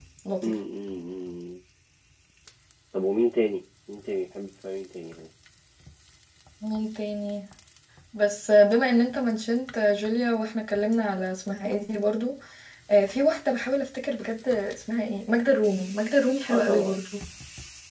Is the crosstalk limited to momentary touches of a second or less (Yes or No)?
Yes